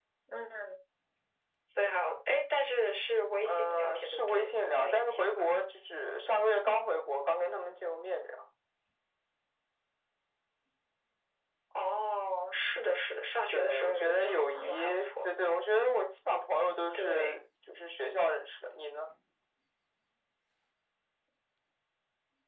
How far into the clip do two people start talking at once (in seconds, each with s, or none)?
3.4 s